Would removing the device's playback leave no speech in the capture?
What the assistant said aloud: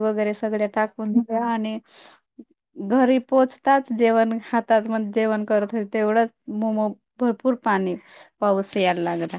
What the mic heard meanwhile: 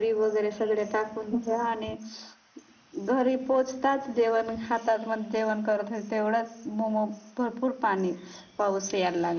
Yes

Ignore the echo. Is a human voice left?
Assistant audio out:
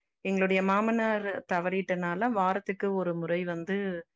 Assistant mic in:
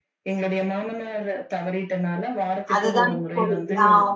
Yes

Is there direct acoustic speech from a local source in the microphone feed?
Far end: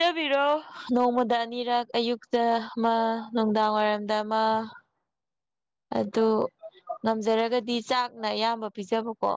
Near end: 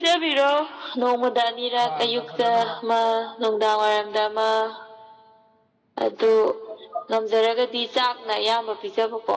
Yes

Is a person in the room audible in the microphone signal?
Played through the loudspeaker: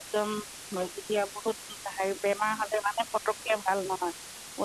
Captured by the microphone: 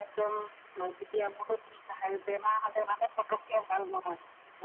No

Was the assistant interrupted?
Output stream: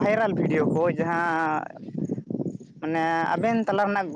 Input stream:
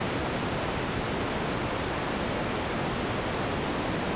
No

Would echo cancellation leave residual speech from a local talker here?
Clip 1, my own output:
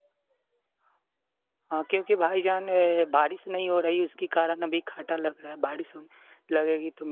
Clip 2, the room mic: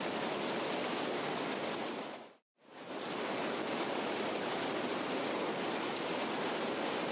No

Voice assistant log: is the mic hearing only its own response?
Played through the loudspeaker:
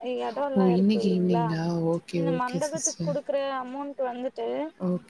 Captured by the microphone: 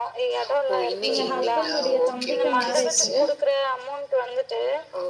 No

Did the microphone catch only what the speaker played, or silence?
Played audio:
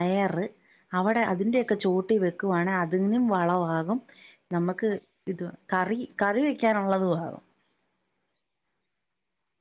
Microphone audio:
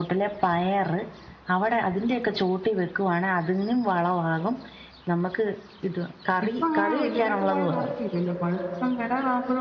No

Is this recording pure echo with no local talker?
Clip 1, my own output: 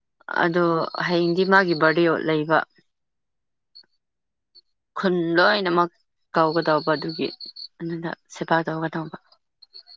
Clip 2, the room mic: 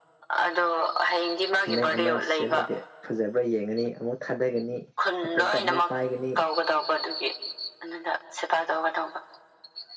No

